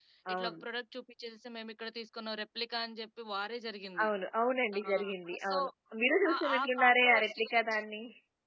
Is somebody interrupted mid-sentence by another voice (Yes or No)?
Yes